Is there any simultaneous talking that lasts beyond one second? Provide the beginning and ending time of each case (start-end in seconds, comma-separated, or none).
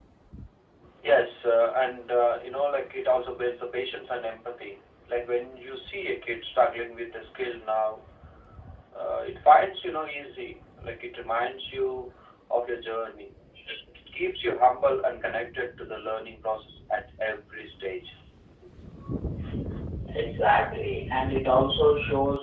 none